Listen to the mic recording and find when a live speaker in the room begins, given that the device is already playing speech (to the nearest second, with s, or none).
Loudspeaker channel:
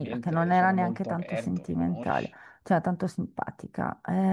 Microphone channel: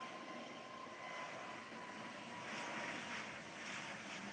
none